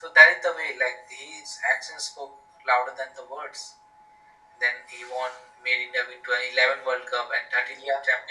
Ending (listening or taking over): listening